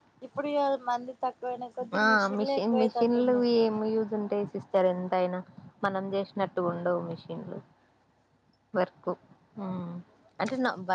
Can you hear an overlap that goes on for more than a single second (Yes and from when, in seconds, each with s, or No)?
Yes, from 1.9 s